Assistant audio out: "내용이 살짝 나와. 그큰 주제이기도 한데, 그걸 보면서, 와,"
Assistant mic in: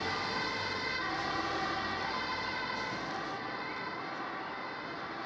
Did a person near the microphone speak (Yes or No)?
No